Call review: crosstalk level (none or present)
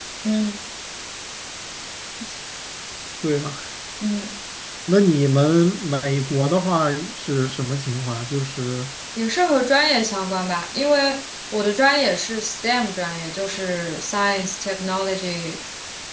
none